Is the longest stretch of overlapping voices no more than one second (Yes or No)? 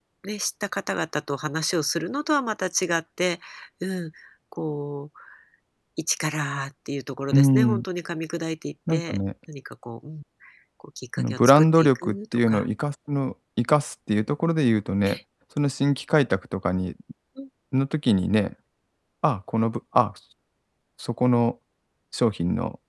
No